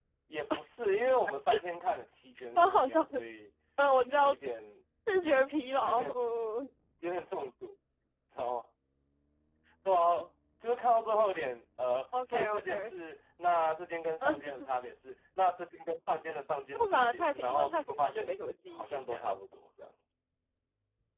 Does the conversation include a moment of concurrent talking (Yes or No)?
Yes